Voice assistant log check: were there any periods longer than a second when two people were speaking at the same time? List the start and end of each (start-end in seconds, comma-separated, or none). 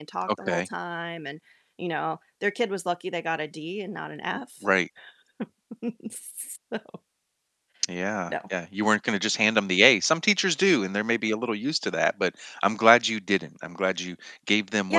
none